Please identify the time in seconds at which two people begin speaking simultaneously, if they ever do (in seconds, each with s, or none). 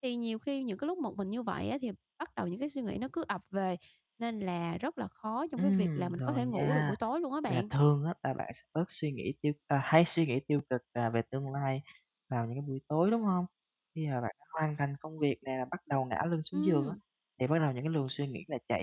5.6 s